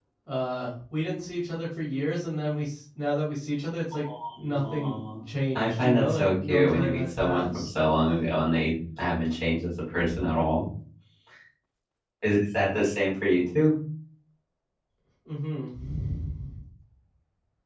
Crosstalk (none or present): present